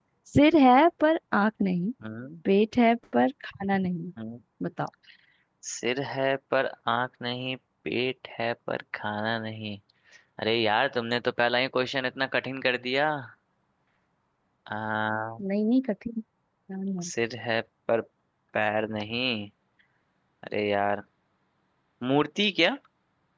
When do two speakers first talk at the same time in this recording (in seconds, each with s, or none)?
none